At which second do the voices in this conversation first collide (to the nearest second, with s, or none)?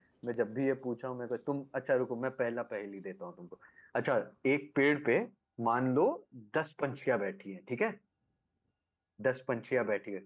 none